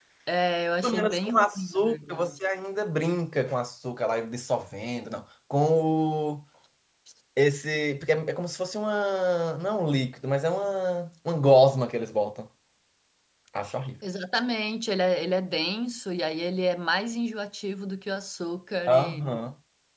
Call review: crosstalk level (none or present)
present